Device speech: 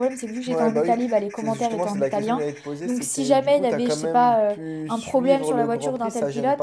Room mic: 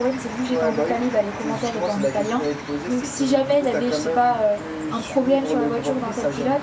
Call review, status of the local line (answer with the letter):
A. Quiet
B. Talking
A